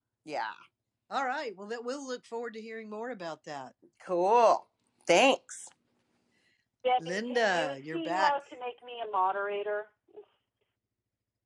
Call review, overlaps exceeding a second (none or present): present